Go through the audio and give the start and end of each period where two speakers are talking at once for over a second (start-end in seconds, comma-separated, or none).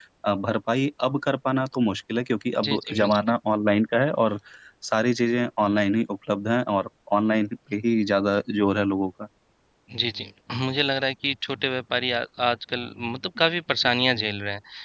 none